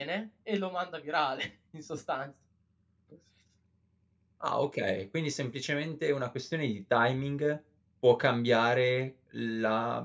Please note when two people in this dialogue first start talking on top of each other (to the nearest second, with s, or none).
none